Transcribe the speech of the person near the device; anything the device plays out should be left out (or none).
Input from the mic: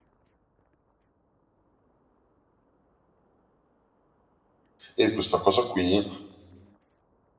e questa cosa qui,